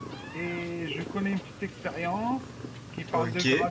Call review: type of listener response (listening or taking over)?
listening